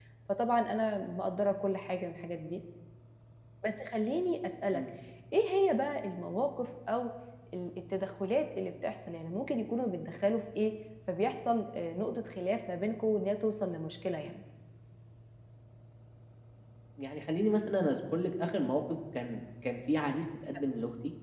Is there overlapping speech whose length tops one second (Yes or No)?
No